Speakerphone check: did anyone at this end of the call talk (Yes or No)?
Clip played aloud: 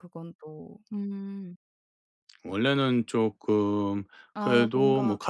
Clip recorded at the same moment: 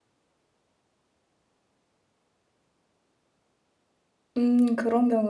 Yes